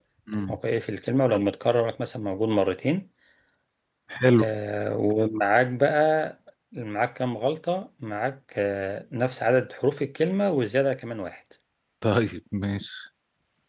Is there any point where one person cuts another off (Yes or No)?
No